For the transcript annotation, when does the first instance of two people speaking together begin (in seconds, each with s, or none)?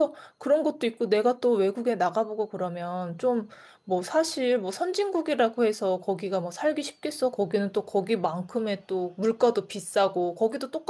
none